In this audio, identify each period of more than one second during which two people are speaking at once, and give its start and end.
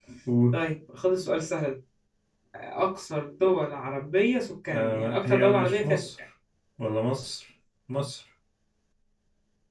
4.7-6.1

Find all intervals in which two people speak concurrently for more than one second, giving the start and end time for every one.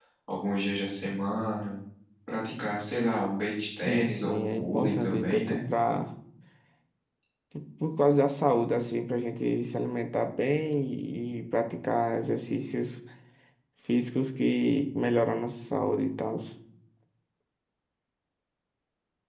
3.9-5.6

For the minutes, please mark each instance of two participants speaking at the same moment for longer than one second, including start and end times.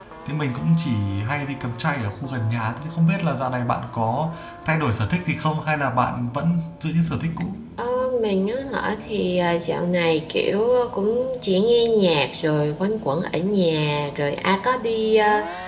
none

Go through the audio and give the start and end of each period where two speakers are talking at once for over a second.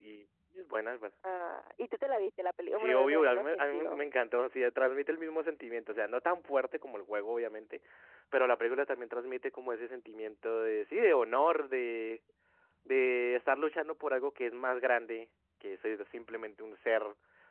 2.8-4.0

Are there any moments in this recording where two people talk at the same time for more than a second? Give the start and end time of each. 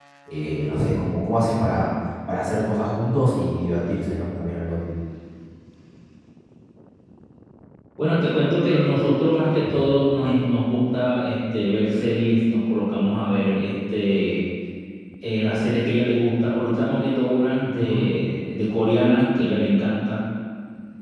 none

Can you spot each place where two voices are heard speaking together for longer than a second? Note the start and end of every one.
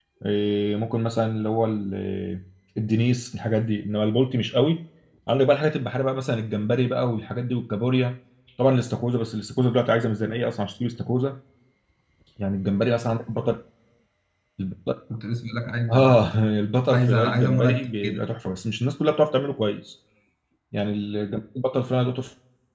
16.9-18.2

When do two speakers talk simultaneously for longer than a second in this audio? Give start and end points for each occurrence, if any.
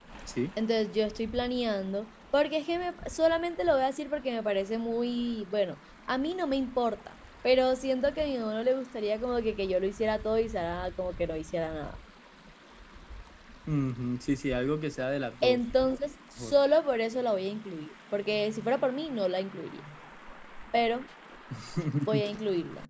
none

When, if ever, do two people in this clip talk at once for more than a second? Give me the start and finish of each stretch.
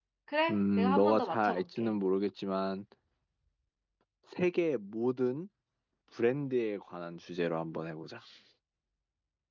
0.5-1.9

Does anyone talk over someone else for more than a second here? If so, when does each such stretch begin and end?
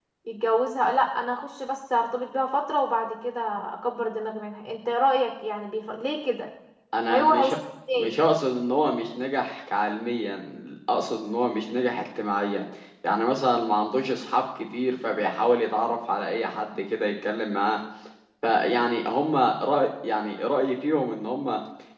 none

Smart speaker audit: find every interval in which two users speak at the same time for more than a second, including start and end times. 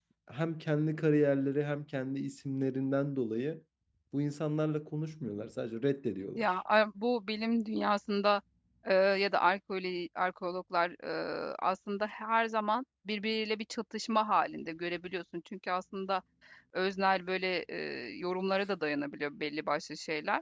none

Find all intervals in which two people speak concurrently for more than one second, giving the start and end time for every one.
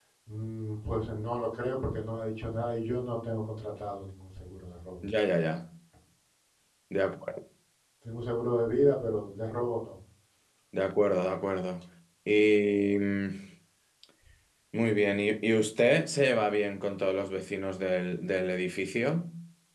none

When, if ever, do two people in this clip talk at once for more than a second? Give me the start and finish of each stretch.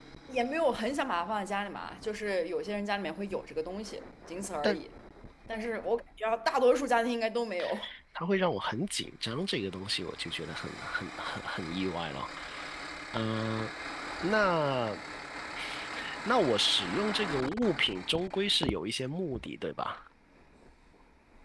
none

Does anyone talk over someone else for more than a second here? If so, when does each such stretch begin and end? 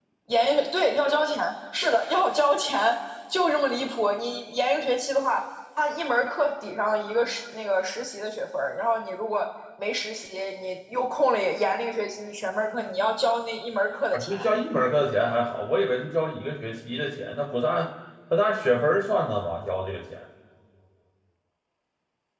none

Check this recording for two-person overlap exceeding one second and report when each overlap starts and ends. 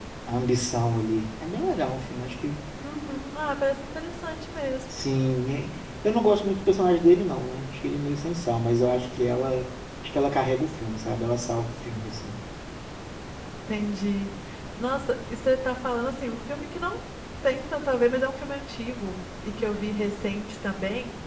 none

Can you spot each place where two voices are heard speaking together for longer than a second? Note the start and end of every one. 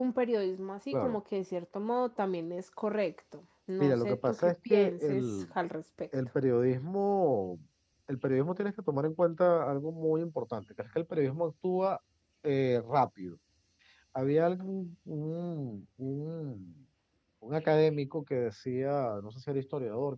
3.8-5.2

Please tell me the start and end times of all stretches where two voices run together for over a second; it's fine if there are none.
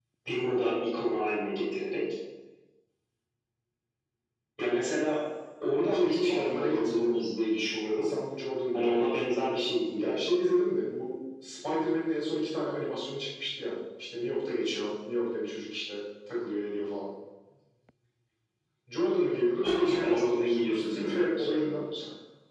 5.9-7.2, 19.6-21.8

